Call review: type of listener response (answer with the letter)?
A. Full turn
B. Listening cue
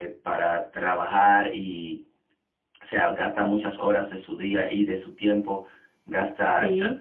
B